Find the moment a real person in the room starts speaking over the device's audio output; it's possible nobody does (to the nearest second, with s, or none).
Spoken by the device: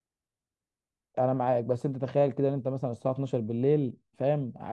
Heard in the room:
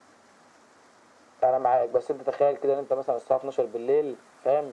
none